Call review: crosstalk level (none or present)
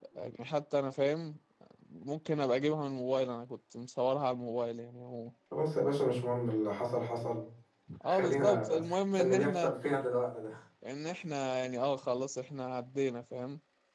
present